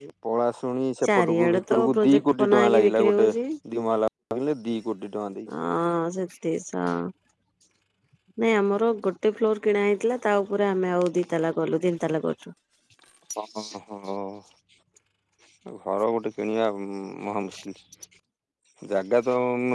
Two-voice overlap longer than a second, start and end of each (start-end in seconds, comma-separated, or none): 1.1-3.3